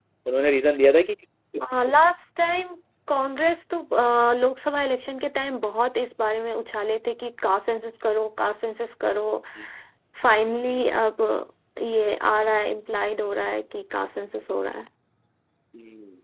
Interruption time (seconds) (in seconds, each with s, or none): none